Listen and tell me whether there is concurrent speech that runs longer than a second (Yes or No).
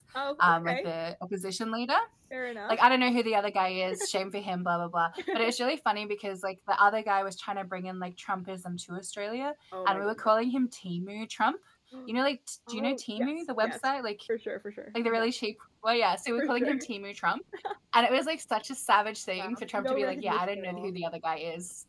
Yes